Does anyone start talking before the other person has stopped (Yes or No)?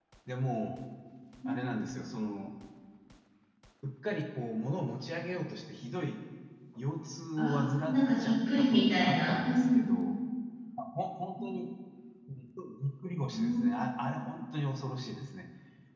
Yes